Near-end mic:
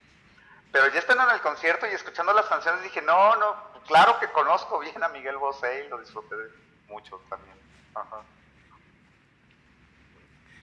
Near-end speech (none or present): none